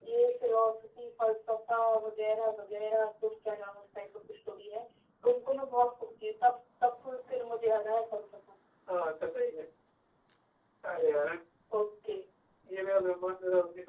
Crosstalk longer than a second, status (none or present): none